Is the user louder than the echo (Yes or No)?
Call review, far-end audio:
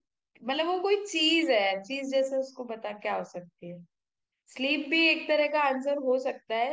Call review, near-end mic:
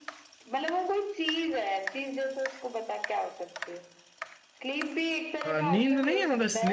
Yes